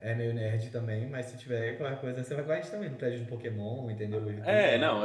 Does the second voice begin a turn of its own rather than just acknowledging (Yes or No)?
Yes